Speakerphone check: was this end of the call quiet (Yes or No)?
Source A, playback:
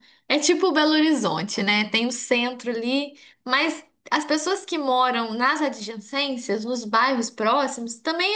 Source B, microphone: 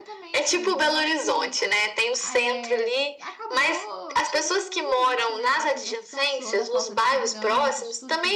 No